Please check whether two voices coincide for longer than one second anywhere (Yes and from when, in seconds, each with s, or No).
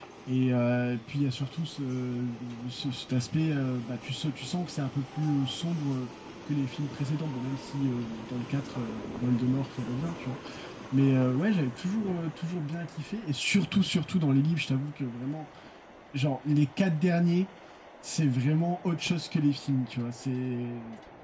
No